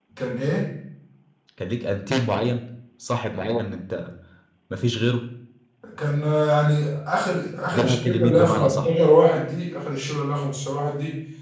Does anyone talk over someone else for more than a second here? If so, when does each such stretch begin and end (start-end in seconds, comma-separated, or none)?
7.7-8.9